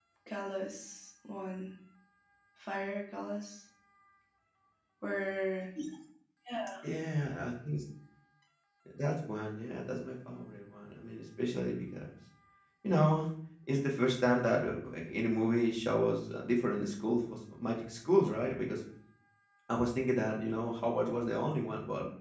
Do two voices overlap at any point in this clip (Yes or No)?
No